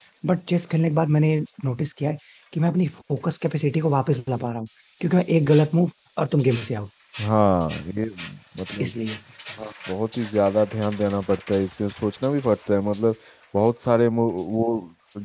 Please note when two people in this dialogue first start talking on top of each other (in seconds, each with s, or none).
none